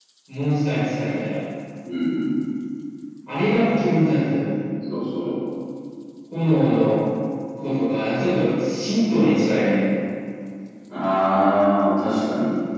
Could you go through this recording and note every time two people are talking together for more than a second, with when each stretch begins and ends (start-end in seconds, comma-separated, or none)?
none